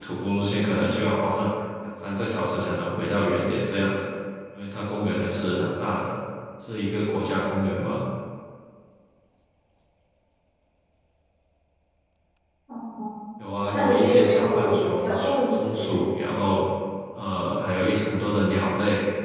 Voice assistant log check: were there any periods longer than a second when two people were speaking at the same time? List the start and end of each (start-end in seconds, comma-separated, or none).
13.7-15.3